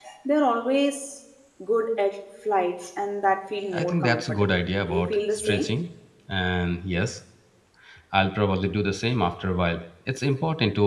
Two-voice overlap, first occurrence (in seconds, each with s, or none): 3.7 s